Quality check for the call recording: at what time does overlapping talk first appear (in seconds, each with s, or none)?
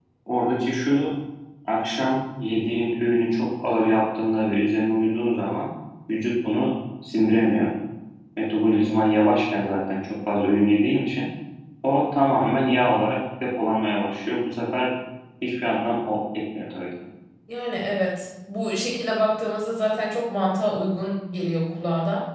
none